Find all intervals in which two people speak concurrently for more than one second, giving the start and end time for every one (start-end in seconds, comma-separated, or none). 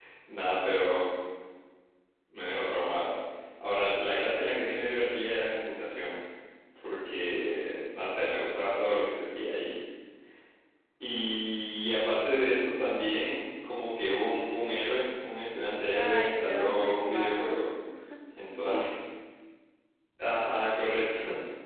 15.9-17.6